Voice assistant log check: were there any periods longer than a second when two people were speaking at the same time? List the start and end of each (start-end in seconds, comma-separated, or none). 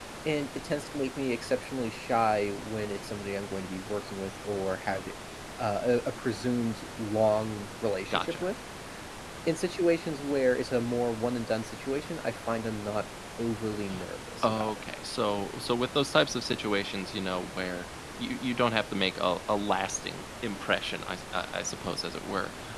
none